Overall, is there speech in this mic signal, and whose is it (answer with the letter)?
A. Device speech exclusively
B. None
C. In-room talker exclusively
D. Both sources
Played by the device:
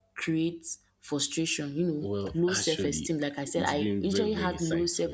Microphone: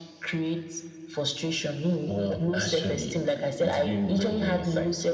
A